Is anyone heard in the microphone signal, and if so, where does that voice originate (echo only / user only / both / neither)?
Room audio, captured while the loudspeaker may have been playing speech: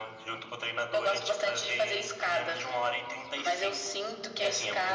echo only